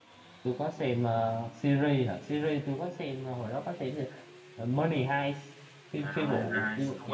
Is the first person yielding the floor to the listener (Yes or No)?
Yes